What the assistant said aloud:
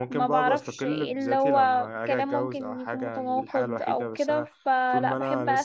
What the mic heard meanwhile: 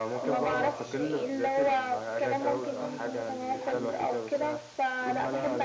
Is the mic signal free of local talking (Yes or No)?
No